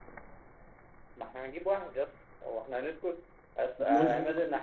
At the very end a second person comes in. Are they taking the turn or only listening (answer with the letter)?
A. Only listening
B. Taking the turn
A